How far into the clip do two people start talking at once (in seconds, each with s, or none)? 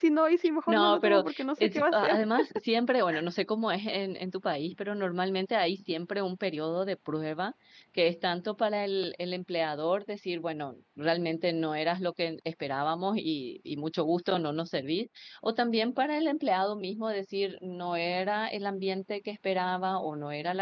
0.7 s